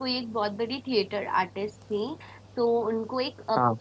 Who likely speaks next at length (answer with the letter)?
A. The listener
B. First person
B